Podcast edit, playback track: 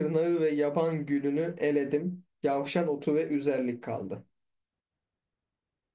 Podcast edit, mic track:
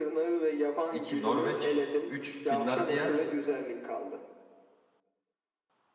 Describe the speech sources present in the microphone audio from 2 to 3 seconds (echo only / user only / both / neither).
both